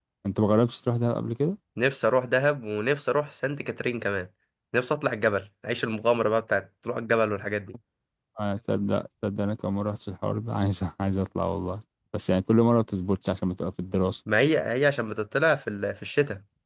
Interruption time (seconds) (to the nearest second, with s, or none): none